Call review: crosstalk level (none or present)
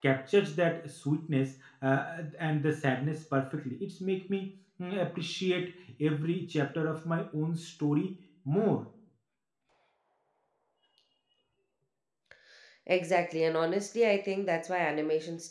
none